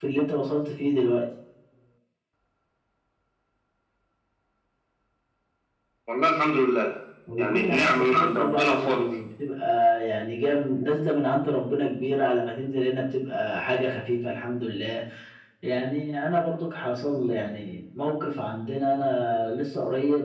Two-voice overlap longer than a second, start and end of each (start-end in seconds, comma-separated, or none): 7.4-9.1